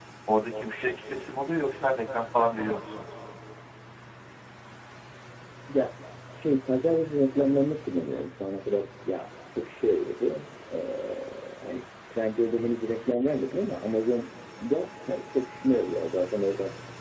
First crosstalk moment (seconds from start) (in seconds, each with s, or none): none